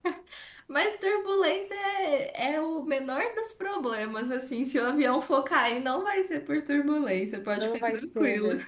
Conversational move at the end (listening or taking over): taking over